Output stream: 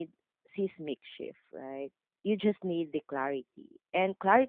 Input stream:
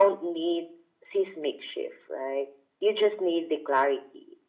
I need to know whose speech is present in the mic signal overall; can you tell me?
echo only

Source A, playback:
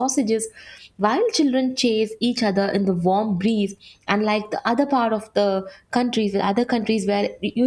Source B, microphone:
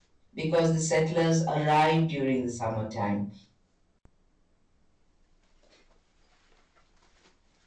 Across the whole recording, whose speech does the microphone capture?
user only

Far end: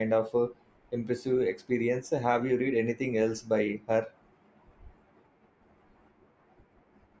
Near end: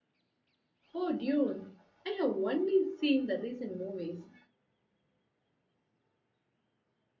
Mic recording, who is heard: user only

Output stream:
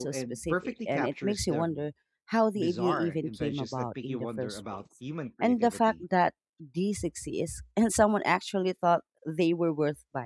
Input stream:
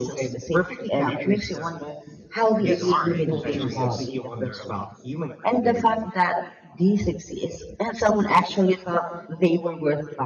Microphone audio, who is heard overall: both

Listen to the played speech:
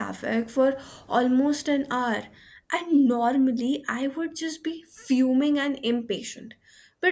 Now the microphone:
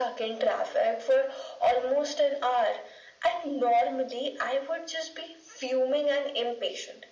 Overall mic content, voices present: echo only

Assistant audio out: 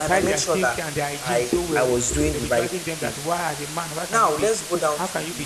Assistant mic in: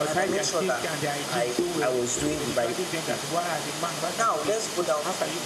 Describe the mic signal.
echo only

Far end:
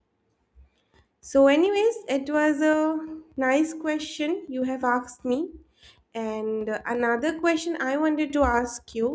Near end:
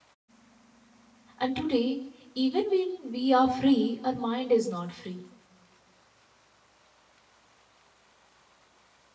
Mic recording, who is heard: user only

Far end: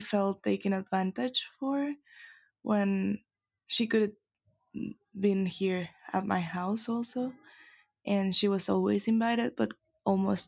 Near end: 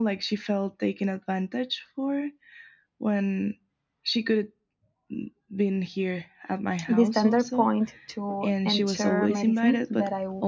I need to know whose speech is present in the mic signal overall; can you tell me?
both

